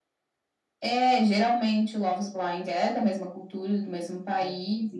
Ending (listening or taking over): listening